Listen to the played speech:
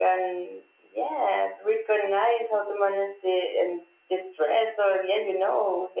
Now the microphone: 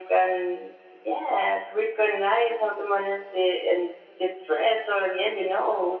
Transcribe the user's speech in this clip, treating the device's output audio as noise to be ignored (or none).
none